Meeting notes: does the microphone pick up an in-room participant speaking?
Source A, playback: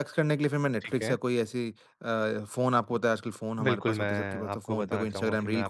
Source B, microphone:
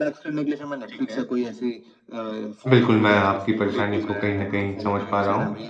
Yes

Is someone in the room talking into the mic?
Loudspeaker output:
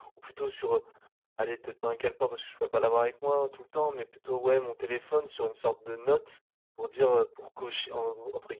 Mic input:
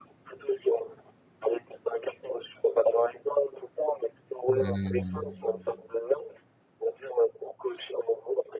Yes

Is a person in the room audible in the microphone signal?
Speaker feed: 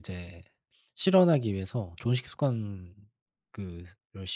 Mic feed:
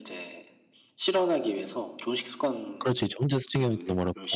Yes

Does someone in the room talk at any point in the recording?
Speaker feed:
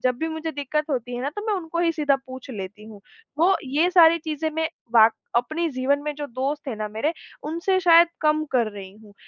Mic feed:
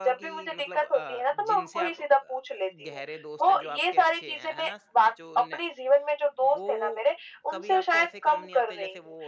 Yes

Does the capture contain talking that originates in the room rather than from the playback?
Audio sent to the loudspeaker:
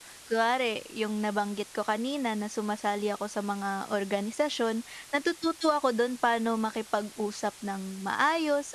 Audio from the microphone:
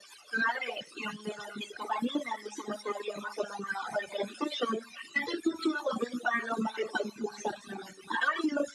No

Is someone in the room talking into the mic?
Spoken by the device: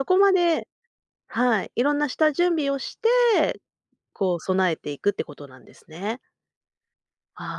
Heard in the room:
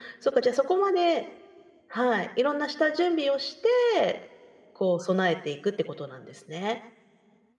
No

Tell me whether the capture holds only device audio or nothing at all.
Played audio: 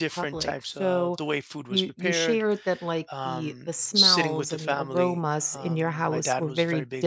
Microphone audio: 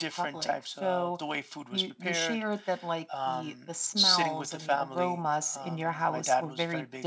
Yes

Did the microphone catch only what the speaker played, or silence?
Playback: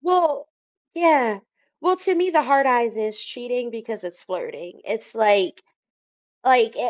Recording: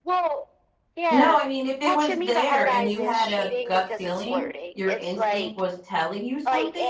No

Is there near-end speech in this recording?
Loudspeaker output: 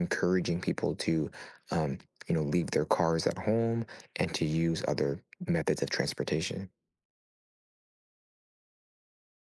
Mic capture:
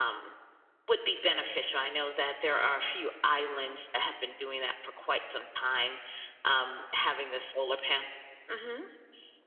Yes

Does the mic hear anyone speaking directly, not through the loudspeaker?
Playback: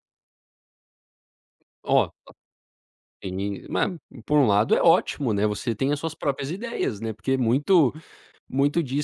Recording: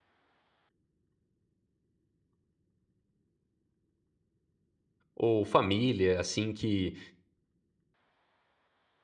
Yes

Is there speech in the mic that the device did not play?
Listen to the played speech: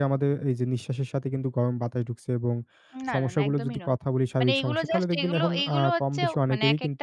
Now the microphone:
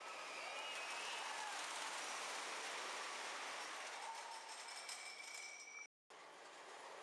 No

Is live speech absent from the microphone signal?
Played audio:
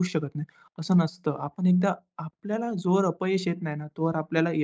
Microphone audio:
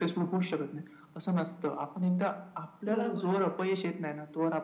No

